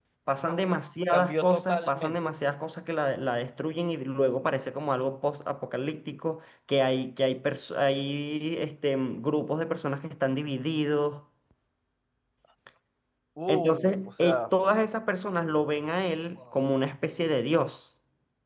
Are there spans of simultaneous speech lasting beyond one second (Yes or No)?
Yes